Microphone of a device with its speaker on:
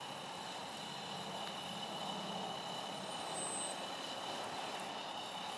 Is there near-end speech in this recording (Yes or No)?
No